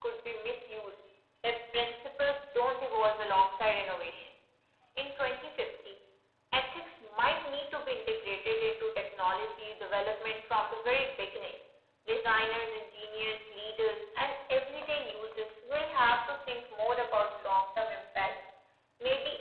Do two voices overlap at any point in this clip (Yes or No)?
No